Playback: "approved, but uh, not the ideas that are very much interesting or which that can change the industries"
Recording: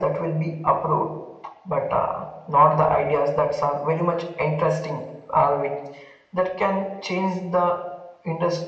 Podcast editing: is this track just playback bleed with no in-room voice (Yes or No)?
Yes